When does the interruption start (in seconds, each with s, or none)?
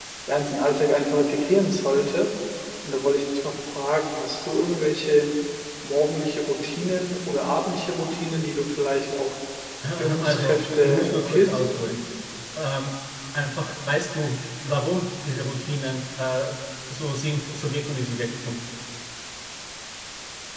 10.0 s